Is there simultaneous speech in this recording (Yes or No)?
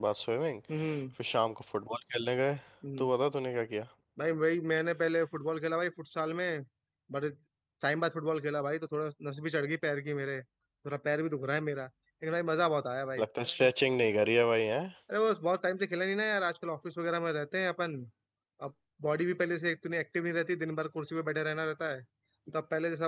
No